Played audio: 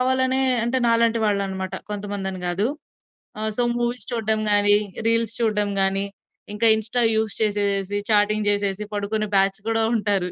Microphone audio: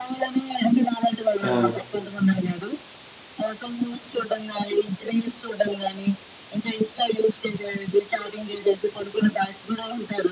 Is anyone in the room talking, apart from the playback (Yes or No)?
Yes